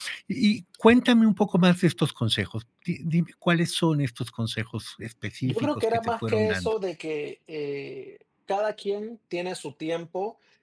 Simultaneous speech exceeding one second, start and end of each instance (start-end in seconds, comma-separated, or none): 5.4-6.7